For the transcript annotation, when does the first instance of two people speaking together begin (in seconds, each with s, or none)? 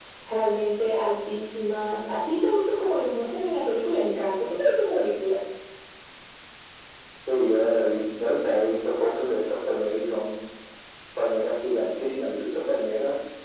none